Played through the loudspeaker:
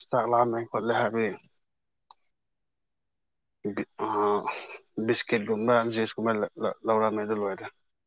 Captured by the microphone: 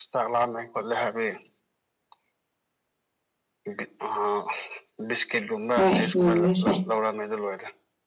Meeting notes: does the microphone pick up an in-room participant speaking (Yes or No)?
Yes